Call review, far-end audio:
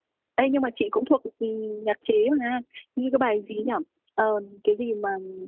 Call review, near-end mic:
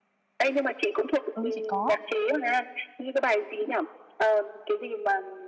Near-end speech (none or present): present